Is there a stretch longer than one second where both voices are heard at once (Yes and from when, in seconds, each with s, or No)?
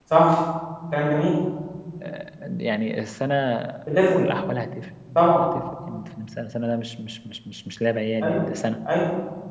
No